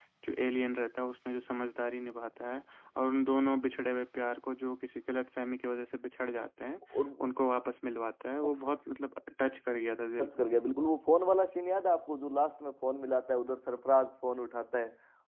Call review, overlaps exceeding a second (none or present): none